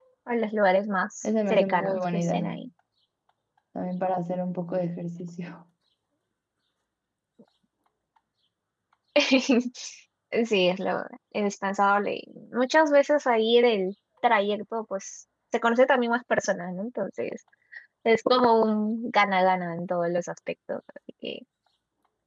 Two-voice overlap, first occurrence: 1.2 s

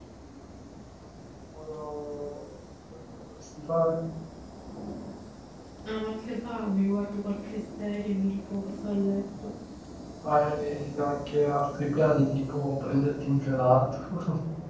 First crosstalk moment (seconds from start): none

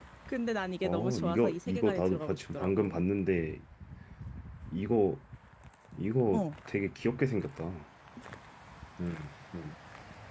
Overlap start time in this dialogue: 0.8 s

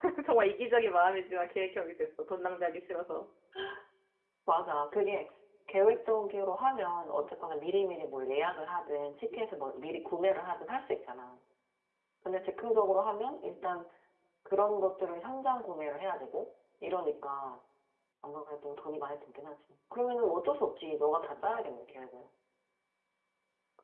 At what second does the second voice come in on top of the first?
none

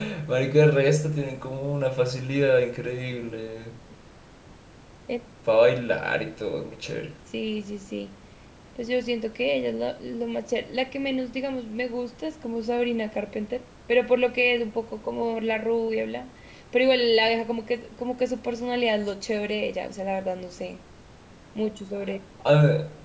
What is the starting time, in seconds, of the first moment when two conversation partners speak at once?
none

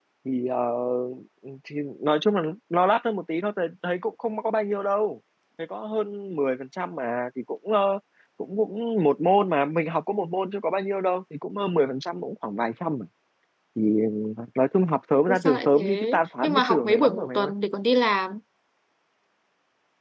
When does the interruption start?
15.3 s

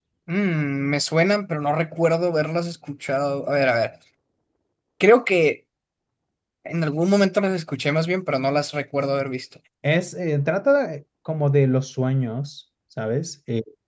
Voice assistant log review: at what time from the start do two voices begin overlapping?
none

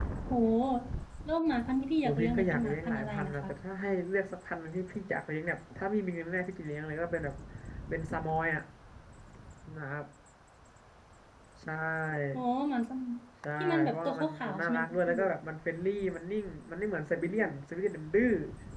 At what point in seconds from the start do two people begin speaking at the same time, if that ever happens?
2.0 s

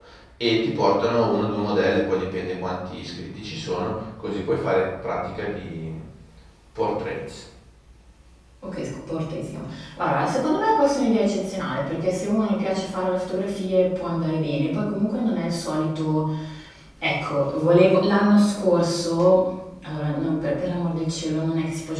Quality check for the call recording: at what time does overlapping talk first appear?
none

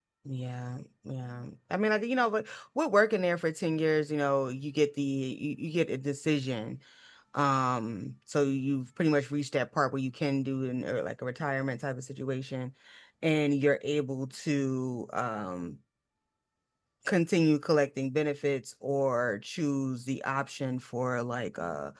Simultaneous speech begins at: none

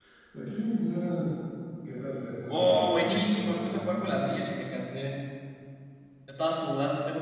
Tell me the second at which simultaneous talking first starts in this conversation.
2.5 s

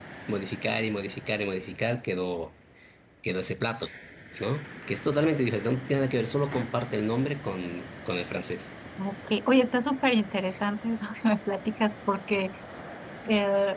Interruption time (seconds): none

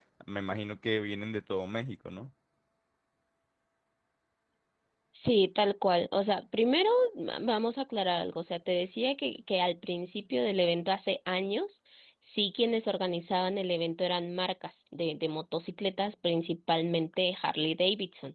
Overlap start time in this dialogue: none

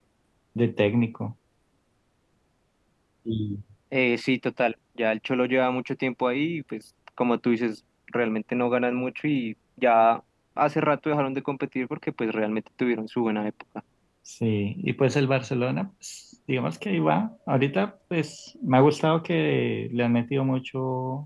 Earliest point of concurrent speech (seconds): none

